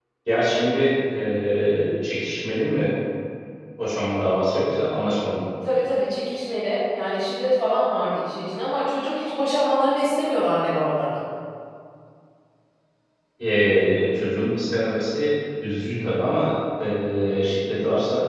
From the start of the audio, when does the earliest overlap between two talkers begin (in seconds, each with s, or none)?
none